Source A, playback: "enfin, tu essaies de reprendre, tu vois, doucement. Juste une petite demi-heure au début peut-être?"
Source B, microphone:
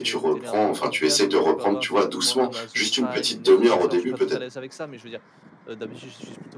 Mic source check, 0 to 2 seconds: both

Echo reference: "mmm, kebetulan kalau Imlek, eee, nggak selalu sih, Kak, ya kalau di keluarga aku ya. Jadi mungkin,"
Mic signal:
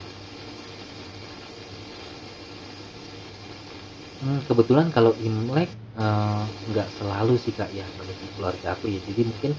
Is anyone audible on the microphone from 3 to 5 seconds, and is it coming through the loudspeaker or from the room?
echo only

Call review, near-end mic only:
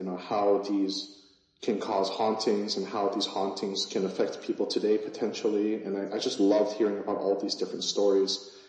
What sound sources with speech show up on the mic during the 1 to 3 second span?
echo only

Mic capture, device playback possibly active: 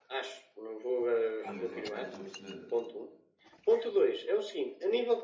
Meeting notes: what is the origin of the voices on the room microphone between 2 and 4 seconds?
both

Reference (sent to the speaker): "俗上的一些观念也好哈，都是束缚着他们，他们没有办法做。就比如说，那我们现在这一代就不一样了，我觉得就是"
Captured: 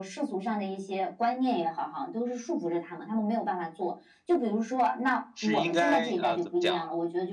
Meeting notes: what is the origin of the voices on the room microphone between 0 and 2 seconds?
echo only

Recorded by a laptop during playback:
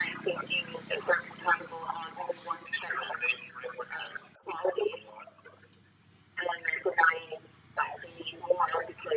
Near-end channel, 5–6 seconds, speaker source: echo only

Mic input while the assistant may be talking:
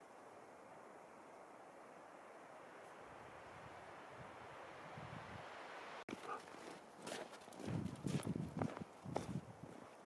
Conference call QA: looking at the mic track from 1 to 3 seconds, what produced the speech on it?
neither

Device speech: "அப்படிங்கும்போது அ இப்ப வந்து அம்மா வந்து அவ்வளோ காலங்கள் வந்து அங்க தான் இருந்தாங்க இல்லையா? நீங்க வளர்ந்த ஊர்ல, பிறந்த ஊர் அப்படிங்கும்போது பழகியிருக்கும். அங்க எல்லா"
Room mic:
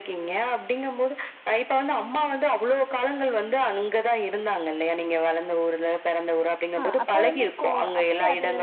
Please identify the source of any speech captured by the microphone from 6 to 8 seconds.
both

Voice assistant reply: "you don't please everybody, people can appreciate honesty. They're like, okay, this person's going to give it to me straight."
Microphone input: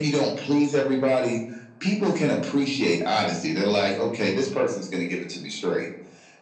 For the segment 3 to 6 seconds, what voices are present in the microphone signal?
echo only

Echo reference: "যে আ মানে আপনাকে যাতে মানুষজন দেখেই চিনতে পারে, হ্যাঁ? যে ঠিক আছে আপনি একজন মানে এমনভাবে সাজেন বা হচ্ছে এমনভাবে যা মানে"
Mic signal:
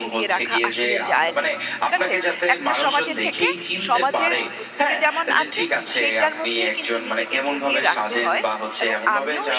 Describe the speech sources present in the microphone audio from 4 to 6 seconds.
both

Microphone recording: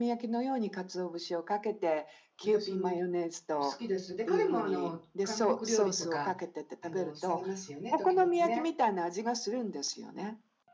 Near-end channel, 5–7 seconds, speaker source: both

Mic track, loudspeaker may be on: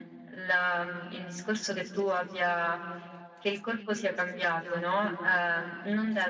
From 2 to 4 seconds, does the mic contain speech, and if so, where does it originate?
echo only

